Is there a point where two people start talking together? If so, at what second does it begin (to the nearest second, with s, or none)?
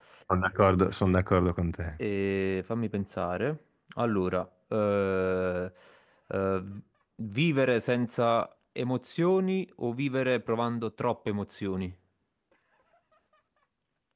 none